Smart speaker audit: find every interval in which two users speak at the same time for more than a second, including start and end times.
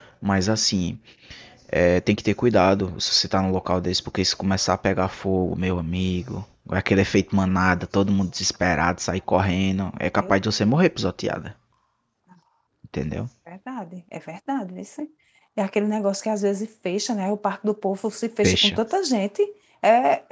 none

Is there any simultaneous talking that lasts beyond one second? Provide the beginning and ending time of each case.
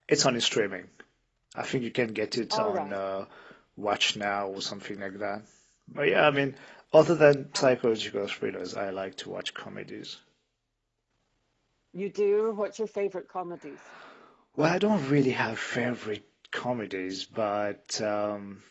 none

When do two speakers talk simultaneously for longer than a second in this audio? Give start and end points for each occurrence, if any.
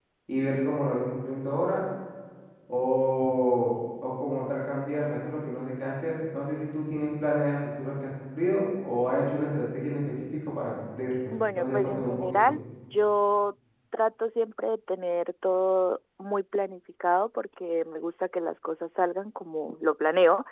11.3-12.6

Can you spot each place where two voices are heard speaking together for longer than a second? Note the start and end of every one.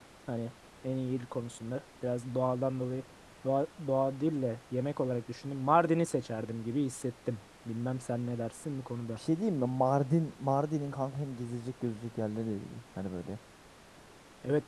none

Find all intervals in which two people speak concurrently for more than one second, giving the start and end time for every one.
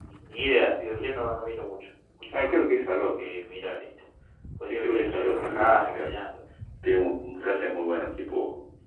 4.7-6.1

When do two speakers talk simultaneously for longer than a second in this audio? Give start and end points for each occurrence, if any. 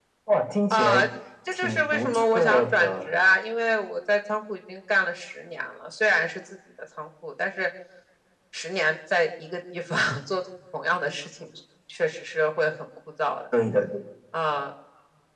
1.5-3.1

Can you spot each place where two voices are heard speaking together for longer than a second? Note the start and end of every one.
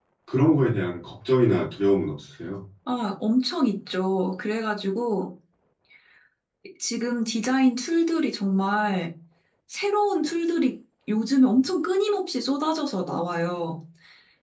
none

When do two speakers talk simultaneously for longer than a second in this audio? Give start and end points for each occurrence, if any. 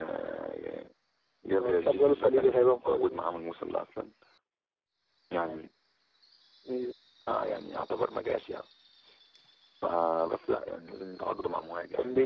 1.6-3.2

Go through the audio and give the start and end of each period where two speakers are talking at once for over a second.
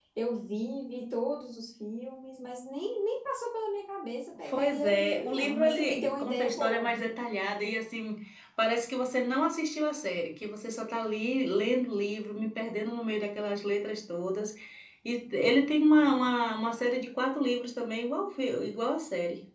4.5-7.1

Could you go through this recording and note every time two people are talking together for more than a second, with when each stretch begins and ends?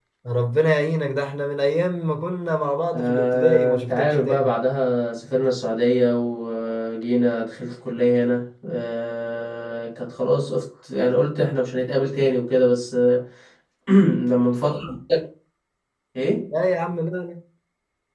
2.9-4.5

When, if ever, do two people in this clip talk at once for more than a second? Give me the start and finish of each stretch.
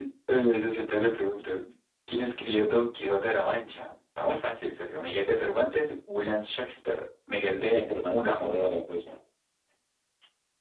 7.5-8.7

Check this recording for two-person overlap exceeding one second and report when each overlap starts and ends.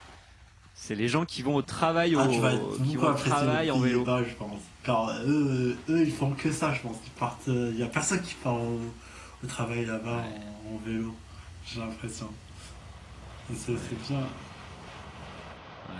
2.1-4.1

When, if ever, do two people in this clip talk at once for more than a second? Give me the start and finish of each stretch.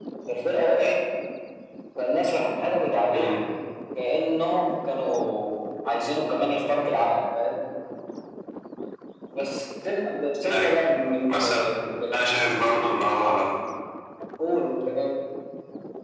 none

